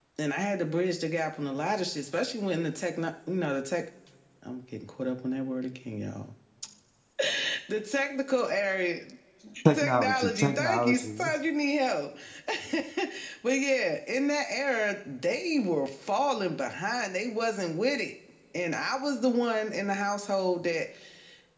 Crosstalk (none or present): present